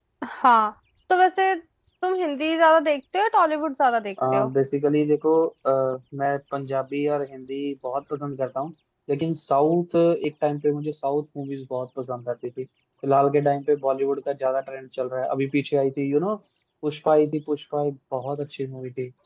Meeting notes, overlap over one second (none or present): none